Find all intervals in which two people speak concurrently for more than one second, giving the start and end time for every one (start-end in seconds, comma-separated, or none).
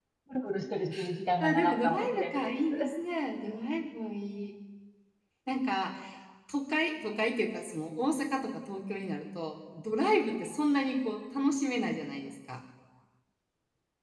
1.4-2.6